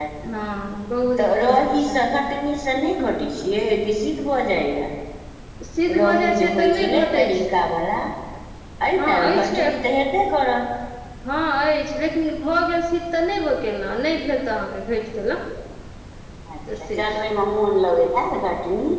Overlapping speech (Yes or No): Yes